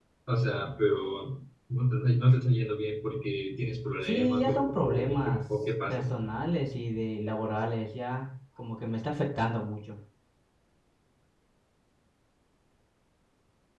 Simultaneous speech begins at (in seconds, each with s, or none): 4.0 s